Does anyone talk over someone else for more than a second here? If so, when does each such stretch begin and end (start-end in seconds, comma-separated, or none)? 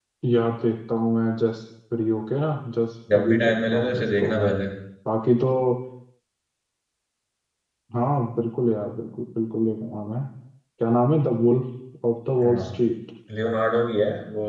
3.1-4.5